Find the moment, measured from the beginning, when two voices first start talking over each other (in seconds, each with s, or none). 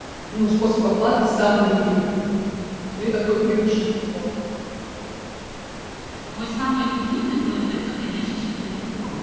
none